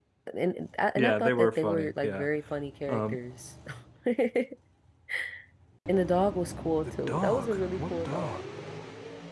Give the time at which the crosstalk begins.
1.0 s

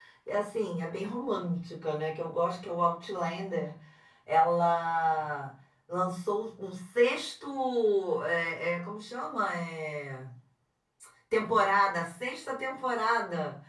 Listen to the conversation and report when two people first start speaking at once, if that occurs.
none

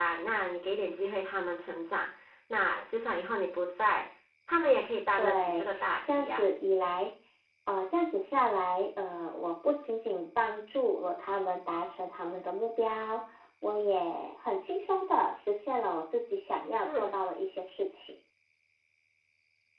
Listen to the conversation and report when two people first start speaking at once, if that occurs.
5.2 s

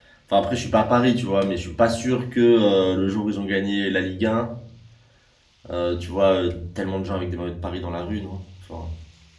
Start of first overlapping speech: none

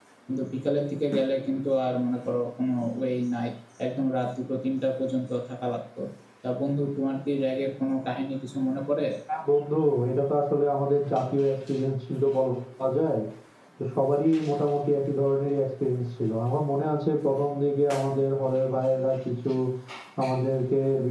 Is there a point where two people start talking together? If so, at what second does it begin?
none

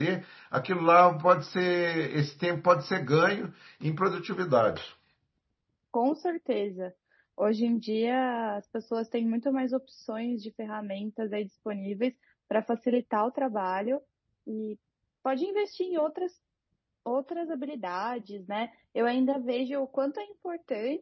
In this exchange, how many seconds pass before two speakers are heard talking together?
none

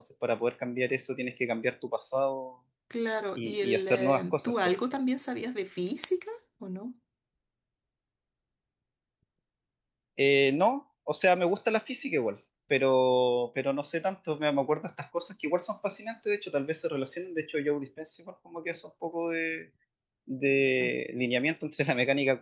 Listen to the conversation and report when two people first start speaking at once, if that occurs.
3.4 s

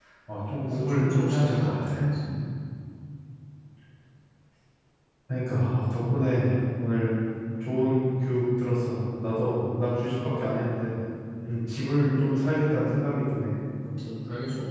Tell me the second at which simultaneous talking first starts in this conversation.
0.7 s

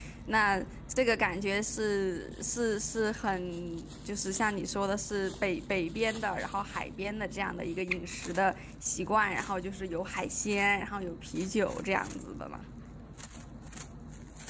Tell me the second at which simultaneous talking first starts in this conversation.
none

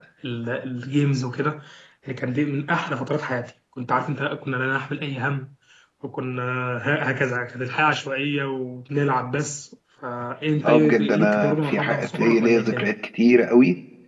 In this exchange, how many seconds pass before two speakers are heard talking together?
10.6 s

